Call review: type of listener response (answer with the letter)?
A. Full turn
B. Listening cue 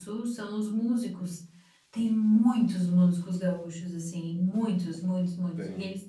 B